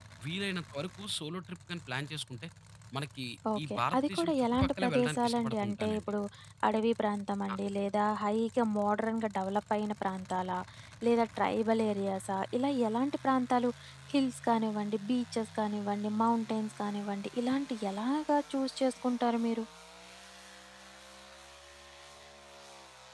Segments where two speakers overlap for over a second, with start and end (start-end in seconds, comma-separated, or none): 3.7-6.1